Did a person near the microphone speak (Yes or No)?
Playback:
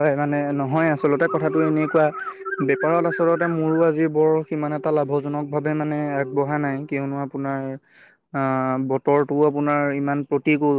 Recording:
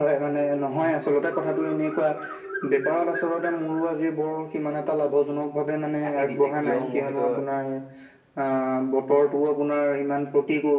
Yes